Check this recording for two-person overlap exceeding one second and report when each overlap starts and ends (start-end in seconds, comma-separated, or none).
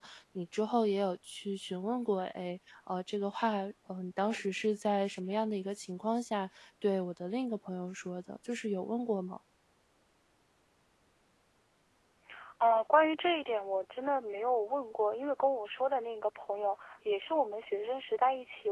none